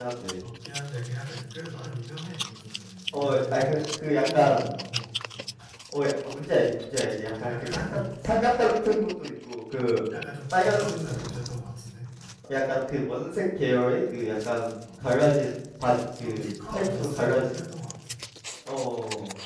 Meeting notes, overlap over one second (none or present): present